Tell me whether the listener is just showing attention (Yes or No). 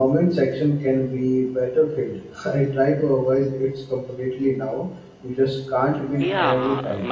No